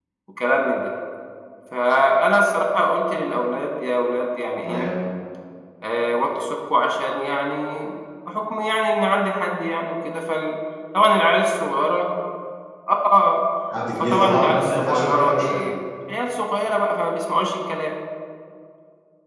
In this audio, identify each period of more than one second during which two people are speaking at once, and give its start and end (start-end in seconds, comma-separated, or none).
14.0-15.6